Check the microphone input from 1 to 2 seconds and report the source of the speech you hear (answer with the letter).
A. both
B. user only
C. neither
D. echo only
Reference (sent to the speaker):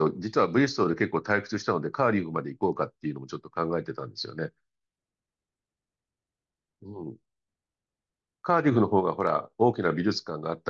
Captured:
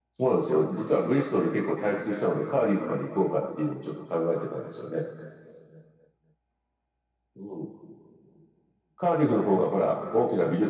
D